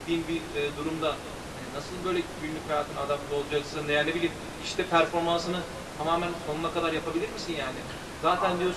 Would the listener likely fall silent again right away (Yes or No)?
Yes